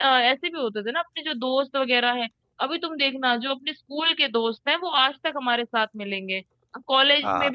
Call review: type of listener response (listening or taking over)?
listening